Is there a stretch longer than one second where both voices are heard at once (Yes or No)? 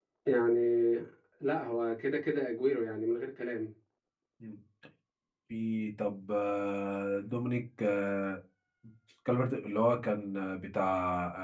No